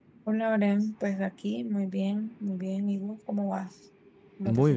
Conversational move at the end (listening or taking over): taking over